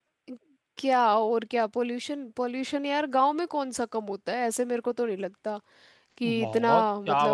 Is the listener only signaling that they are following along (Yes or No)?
No